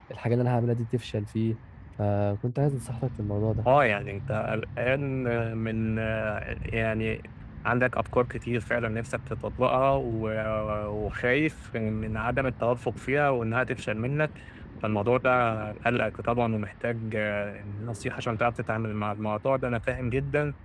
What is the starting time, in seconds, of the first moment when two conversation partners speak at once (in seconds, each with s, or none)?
none